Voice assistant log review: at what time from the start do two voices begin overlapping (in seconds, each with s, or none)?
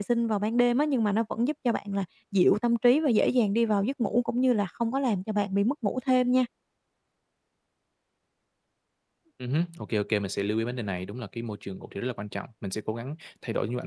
none